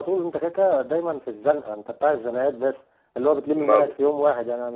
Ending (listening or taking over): listening